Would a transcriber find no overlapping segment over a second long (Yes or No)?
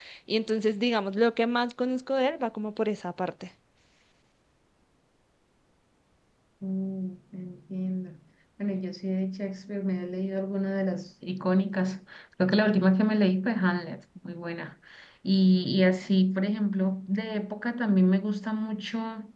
Yes